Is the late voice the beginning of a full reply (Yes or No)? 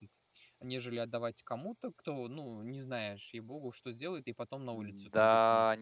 Yes